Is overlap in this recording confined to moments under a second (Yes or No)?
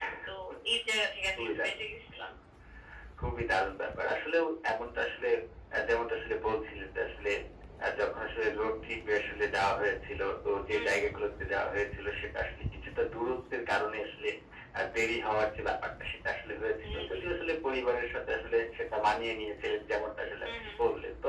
Yes